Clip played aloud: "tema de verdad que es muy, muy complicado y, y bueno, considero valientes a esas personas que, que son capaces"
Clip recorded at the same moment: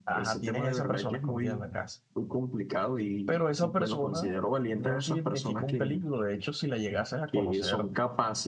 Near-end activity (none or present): present